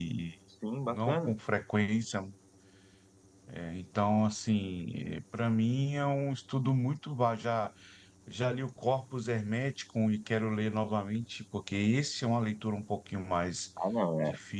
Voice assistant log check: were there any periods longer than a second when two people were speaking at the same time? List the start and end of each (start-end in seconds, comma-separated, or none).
none